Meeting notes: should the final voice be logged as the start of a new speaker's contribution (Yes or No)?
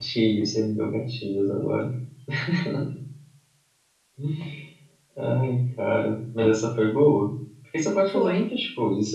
No